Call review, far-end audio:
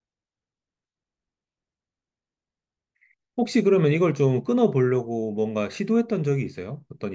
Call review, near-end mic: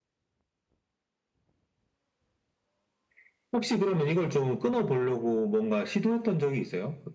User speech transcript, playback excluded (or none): none